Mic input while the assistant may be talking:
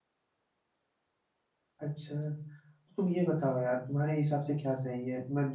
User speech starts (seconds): 1.8 s

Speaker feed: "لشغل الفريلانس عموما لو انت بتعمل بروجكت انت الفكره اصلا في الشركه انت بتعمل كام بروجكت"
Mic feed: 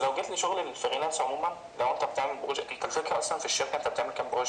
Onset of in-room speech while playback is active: none

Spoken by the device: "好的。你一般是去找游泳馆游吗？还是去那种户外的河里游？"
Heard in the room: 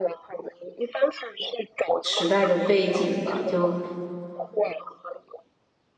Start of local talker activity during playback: 2.0 s

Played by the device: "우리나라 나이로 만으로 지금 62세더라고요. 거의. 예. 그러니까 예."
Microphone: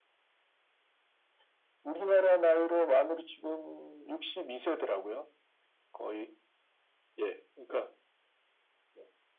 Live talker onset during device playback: none

